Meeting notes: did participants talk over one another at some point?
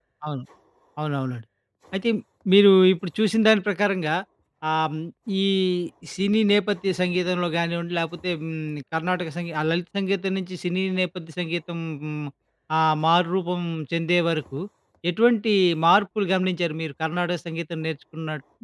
No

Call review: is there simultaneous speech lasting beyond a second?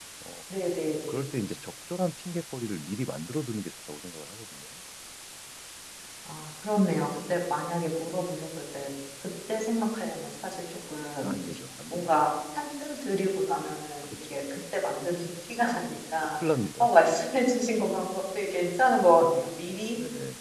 No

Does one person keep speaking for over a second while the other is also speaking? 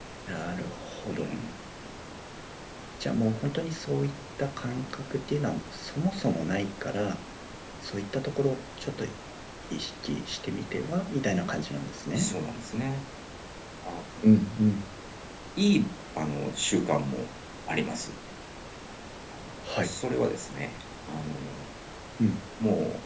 No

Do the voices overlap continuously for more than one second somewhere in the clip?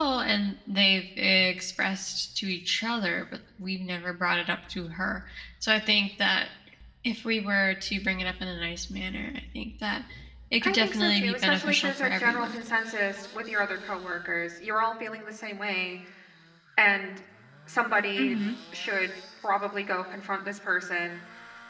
Yes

